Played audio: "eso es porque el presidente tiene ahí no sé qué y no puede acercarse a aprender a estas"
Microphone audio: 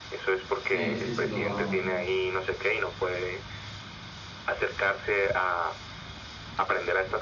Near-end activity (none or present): present